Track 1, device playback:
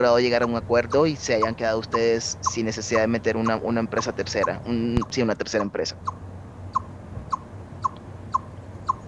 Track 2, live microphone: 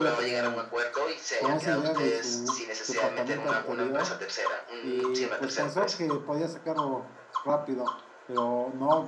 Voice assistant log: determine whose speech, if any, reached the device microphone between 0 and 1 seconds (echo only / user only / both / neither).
both